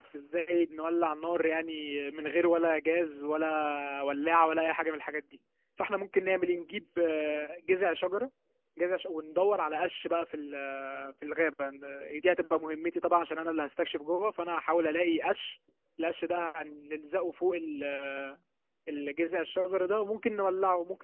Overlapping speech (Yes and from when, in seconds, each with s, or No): No